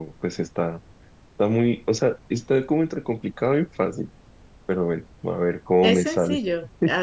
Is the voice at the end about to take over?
Yes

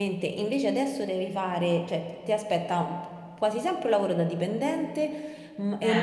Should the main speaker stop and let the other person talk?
No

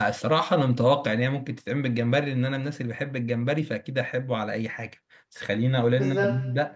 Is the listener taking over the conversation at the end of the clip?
No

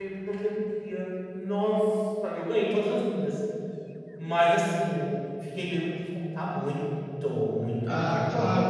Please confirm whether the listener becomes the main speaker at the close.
Yes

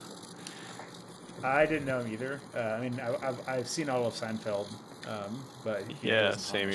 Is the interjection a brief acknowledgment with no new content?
No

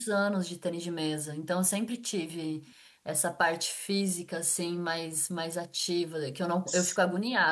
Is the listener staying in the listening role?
Yes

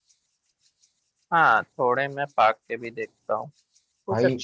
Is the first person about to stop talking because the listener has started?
No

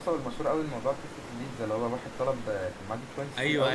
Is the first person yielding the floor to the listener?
Yes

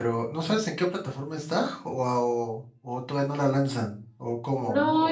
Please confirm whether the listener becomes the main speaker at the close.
Yes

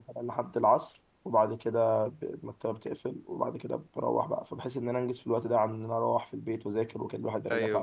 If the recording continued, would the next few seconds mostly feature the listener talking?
Yes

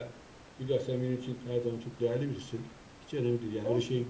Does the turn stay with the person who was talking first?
Yes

